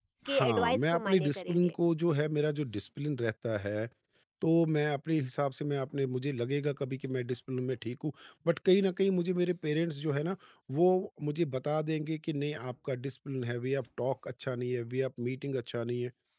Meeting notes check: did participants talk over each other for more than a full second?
Yes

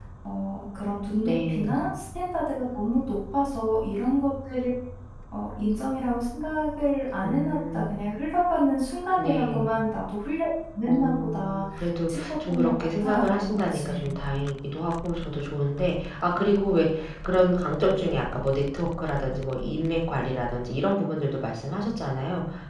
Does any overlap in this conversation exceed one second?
Yes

